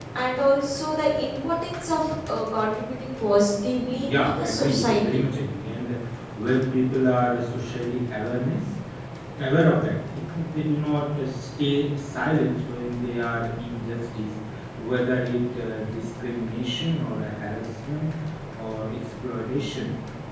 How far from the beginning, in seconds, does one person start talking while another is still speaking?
4 s

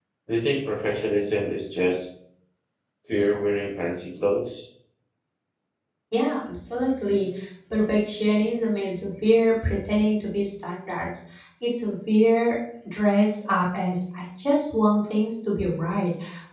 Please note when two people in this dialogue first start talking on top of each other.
none

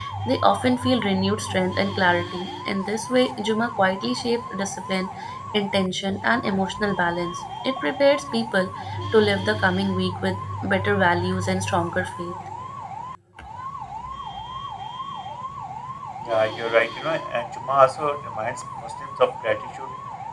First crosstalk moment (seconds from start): none

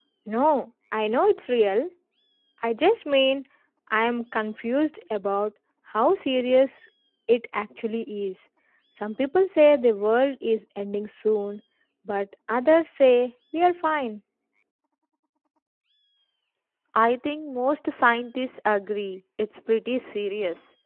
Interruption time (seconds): none

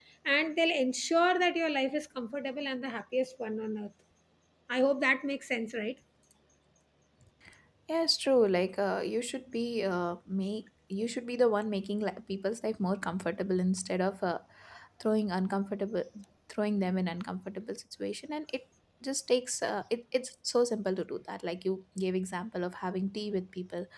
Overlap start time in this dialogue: none

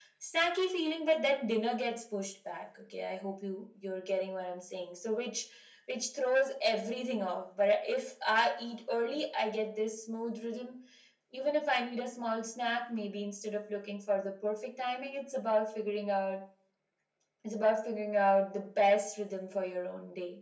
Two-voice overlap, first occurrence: none

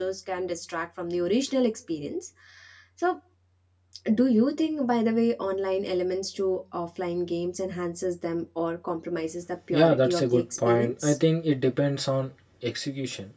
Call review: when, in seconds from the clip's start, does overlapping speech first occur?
10 s

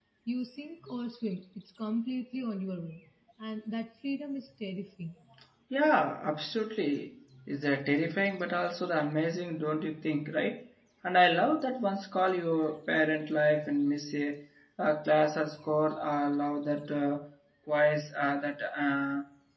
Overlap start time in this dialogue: none

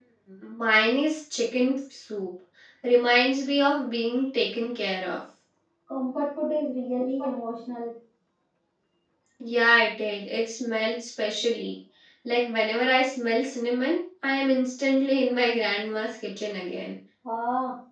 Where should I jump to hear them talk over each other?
none

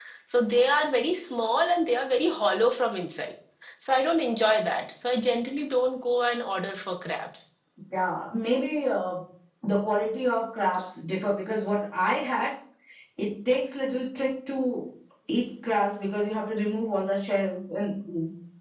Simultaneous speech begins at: none

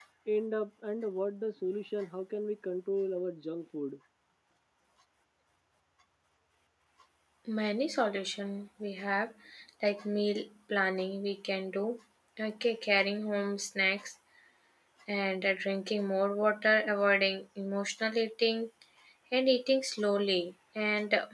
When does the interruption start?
none

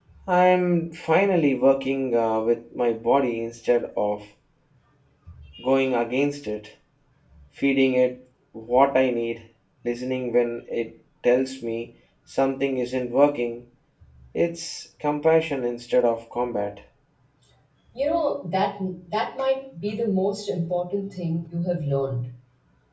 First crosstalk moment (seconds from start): none

